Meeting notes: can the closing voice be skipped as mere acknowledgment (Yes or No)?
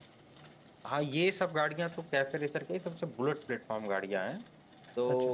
Yes